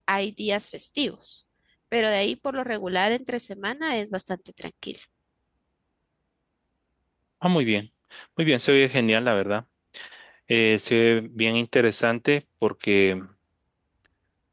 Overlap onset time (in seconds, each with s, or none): none